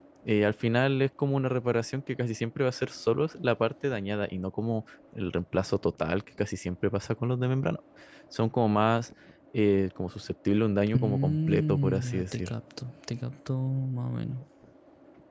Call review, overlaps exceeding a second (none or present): present